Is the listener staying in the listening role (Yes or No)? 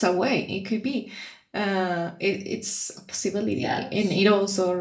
Yes